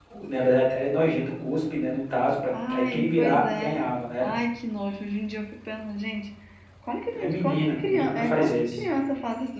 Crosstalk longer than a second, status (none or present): present